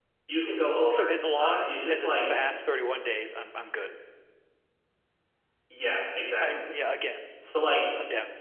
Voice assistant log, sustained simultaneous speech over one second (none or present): present